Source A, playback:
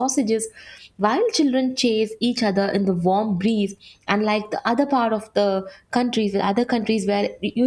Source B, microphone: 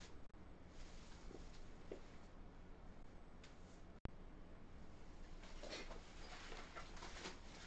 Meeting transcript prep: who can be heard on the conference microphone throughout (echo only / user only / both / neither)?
neither